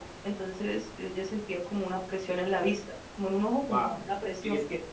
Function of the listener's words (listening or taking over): taking over